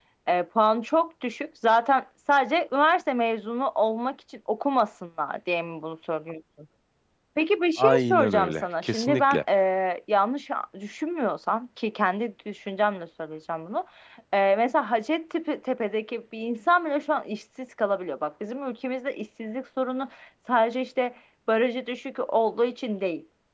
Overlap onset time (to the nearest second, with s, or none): 8 s